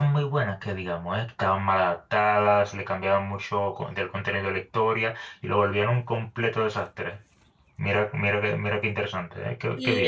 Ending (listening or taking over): taking over